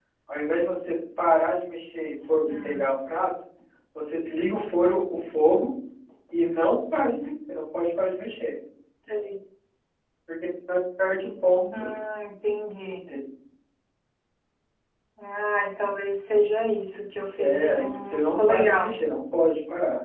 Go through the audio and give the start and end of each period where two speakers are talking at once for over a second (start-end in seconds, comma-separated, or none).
17.4-18.9